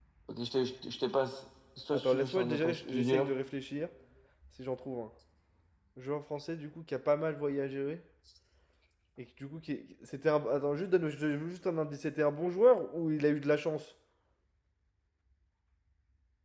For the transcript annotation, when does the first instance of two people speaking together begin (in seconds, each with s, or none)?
1.9 s